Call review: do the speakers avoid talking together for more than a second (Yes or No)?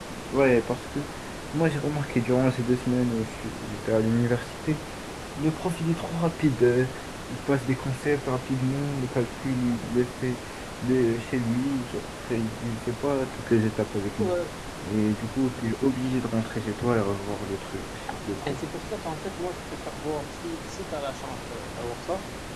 Yes